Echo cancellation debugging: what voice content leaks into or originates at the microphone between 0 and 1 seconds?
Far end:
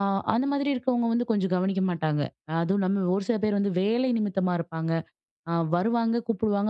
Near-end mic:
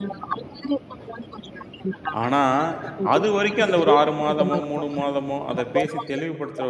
echo only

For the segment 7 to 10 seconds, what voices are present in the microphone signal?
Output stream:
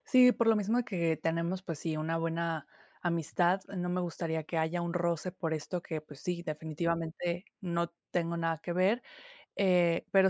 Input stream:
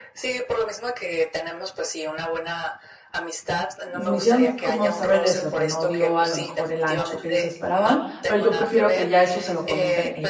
both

